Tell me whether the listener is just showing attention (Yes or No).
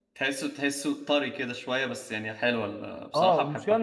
No